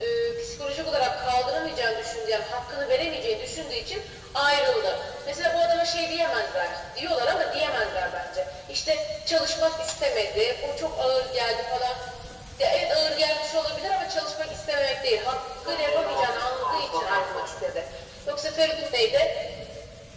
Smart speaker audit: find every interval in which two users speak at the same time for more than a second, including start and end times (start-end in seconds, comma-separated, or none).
15.6-17.5